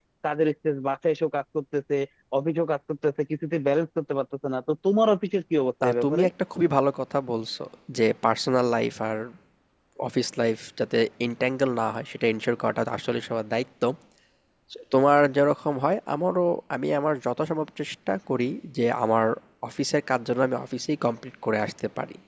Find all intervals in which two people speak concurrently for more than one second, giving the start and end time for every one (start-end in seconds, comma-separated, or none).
none